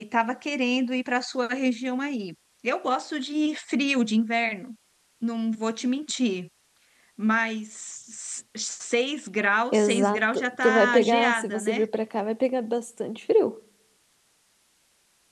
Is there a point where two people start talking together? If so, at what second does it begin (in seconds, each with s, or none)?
9.7 s